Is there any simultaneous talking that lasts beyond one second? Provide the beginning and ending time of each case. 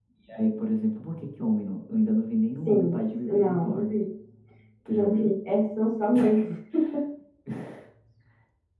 2.7-4.0

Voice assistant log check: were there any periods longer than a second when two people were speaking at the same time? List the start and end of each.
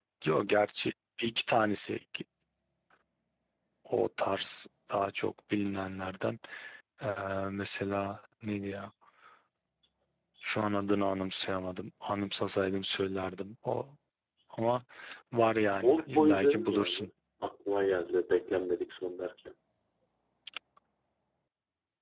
15.8-17.0

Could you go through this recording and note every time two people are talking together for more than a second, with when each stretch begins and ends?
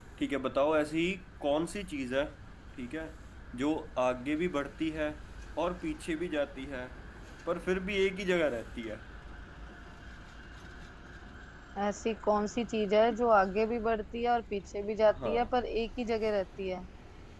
none

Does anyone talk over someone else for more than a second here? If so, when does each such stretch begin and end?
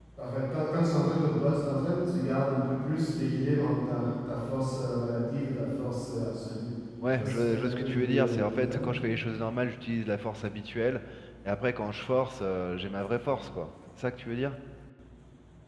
7.2-8.8

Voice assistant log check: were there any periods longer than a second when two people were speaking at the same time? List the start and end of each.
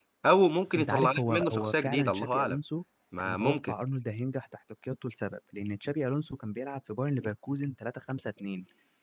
0.8-2.6

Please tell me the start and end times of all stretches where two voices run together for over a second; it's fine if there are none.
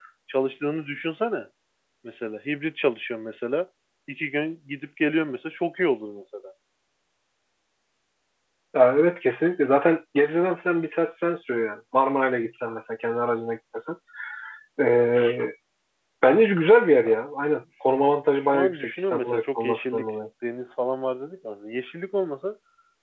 18.5-20.1

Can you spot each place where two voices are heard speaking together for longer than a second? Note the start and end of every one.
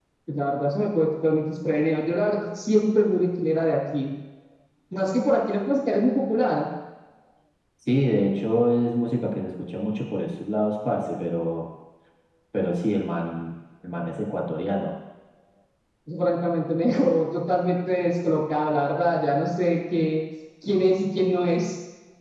none

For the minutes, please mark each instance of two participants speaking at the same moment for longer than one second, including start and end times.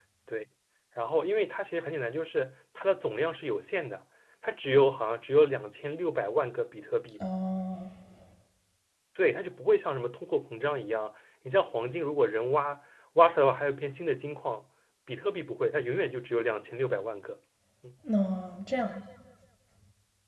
none

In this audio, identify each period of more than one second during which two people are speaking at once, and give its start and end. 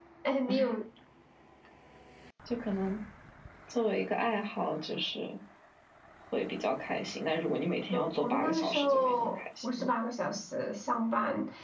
7.9-9.9

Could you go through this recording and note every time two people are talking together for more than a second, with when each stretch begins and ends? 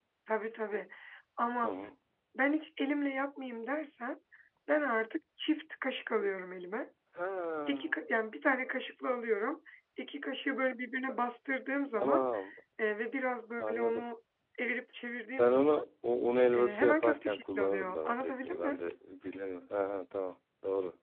16.5-18.8

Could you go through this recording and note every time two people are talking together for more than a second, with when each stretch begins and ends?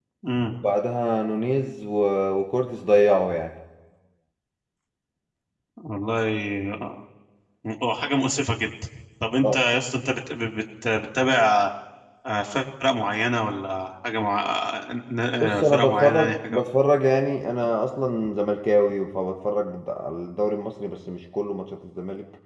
15.4-16.6

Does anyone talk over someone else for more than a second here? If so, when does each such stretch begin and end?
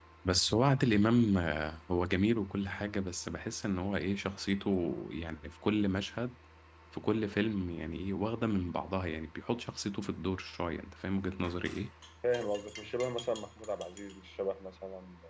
none

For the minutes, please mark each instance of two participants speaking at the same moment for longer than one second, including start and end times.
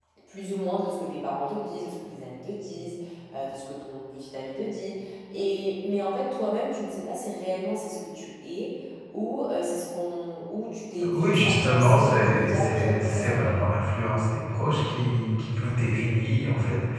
11.0-13.6

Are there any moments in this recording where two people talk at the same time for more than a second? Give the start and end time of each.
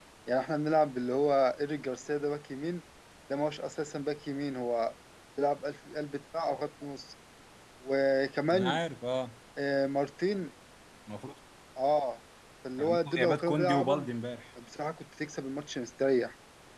12.8-14.1

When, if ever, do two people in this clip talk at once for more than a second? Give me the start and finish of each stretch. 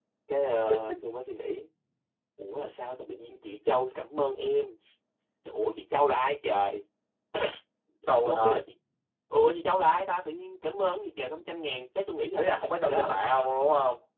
none

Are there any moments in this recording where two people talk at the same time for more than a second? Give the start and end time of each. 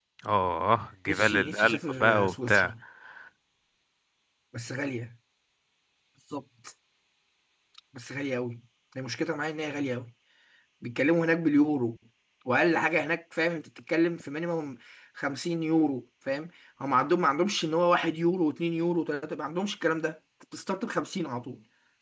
1.1-2.7

